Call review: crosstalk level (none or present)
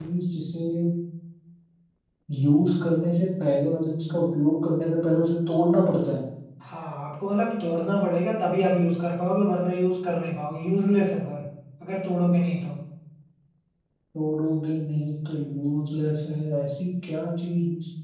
none